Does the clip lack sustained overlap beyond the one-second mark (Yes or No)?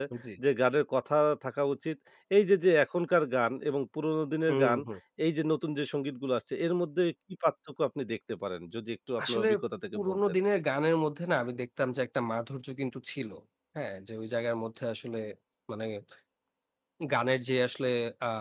Yes